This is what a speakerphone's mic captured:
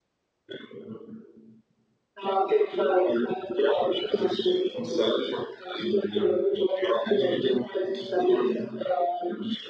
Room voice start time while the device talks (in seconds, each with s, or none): none